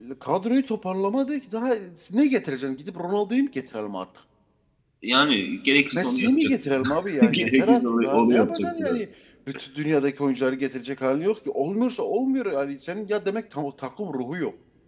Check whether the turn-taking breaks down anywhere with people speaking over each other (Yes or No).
Yes